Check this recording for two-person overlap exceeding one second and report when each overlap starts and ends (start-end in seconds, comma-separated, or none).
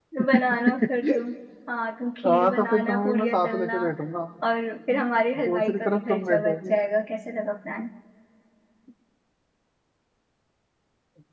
2.3-3.8, 5.5-6.8